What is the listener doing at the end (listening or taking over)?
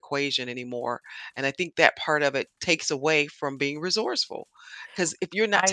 listening